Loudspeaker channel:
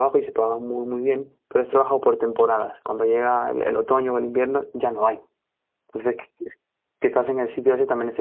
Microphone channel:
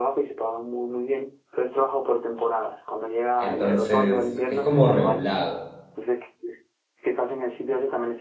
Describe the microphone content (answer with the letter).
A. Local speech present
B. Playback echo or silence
A